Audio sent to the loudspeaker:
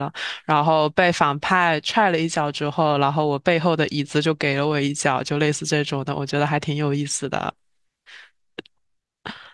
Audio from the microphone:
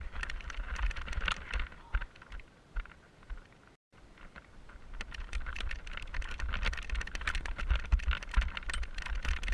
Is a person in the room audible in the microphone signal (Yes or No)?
No